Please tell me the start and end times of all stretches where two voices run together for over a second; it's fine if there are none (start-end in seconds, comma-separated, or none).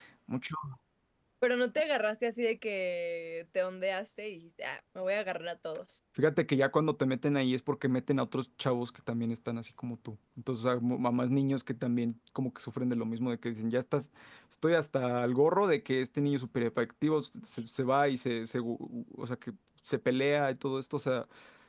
none